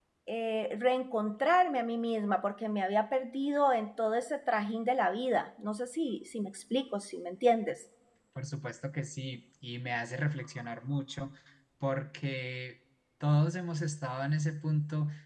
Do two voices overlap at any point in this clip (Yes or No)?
No